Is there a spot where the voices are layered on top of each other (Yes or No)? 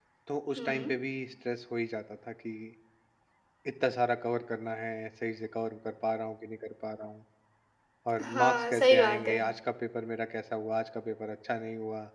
Yes